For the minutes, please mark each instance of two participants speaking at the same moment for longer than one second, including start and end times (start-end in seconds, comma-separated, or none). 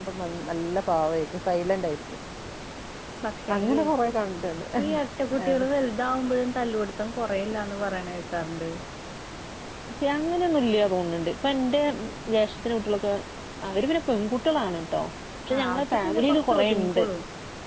15.6-17.0